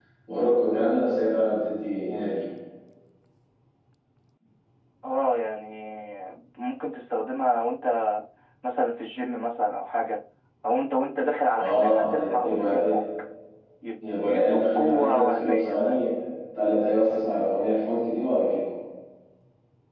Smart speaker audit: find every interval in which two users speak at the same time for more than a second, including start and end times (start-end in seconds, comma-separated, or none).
11.6-12.9, 14.2-16.1